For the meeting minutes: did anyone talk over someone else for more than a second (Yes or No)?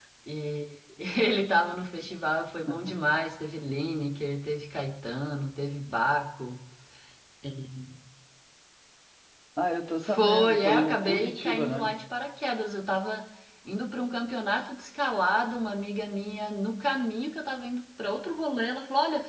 Yes